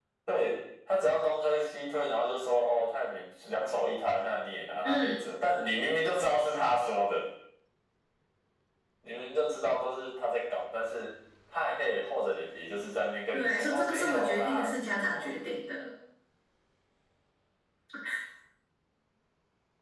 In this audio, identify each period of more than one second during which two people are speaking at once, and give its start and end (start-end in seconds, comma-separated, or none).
13.3-15.3